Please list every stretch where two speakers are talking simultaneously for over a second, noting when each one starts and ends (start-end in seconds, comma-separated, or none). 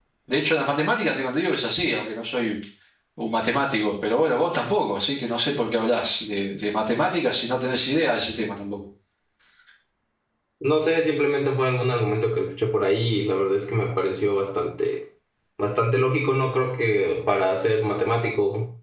none